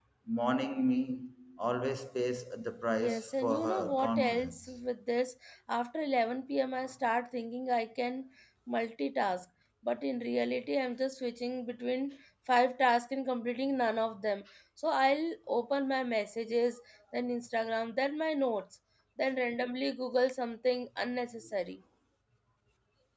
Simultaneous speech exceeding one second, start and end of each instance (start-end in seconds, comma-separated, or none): 2.9-4.8